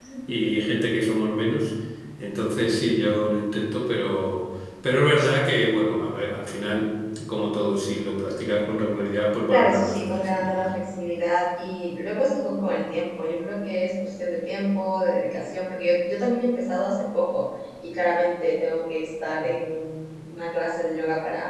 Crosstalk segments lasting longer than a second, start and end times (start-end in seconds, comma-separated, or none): 9.5-10.7